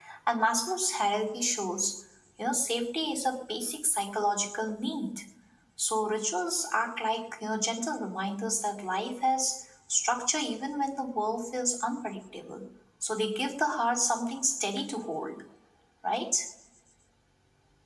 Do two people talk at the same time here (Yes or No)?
No